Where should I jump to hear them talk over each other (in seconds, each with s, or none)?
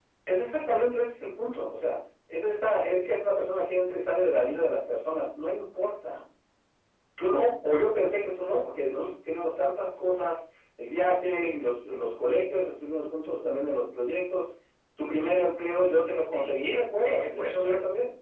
16.3 s